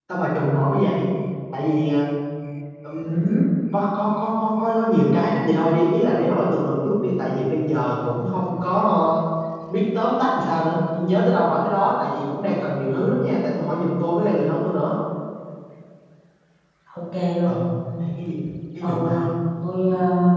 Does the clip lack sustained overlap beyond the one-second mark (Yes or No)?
Yes